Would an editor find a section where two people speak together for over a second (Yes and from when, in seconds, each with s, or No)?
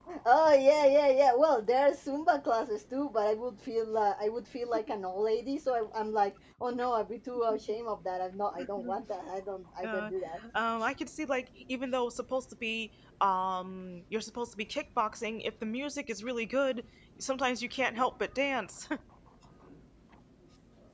No